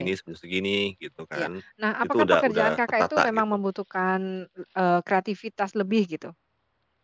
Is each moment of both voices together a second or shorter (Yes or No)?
No